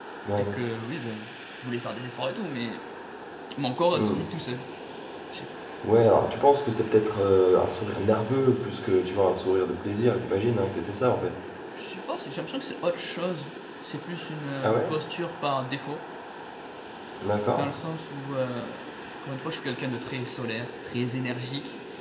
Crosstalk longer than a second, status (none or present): none